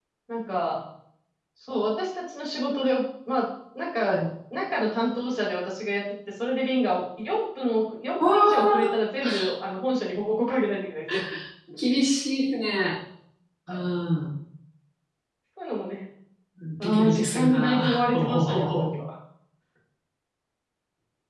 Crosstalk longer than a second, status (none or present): present